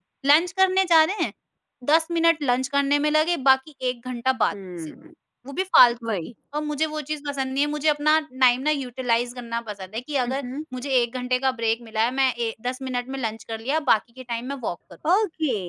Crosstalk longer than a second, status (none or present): none